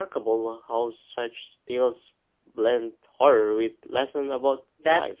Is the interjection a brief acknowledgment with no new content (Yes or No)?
No